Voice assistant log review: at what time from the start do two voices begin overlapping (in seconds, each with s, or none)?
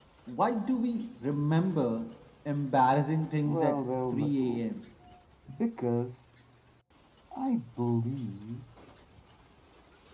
3.4 s